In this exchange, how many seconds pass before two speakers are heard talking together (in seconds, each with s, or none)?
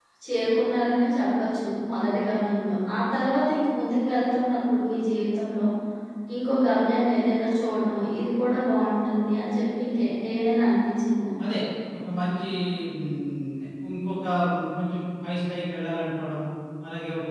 none